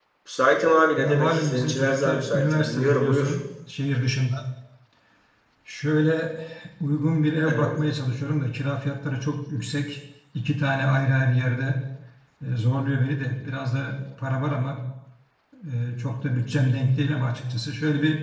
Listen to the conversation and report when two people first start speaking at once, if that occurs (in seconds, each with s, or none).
1.0 s